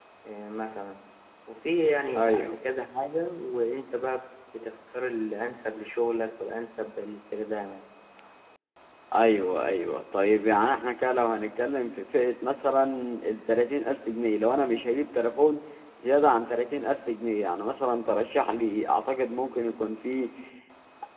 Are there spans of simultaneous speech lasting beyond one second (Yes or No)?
No